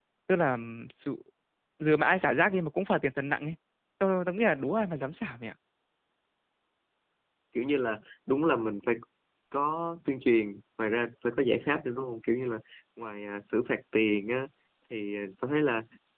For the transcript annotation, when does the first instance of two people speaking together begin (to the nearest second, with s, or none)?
none